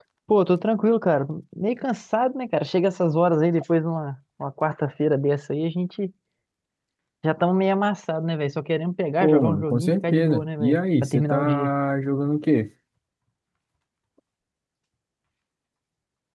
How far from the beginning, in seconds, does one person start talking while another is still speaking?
9.2 s

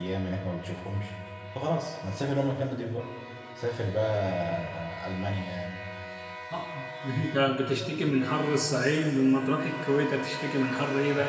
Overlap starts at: none

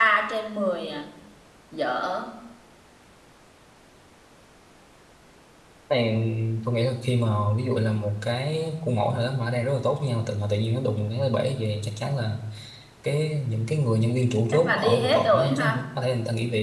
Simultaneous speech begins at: 14.5 s

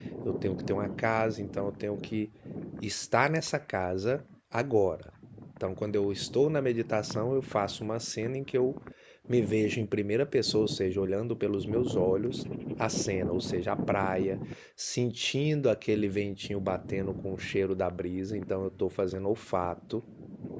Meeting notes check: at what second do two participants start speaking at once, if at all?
none

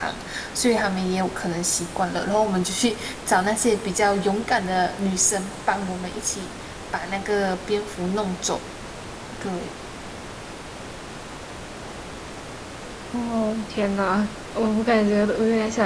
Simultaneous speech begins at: none

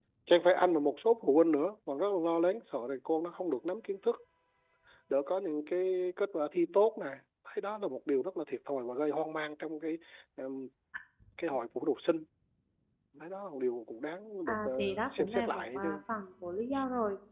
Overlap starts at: 14.5 s

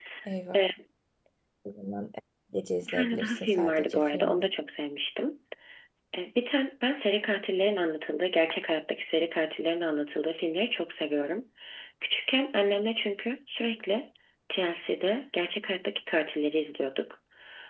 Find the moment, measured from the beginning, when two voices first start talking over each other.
2.8 s

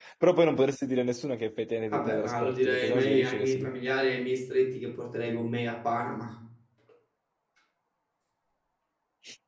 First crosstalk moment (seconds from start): 1.9 s

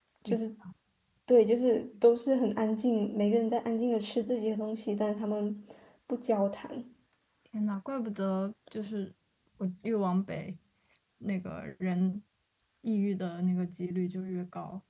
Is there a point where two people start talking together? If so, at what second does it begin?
none

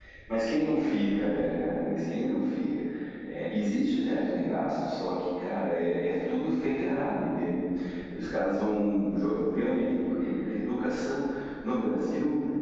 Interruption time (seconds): none

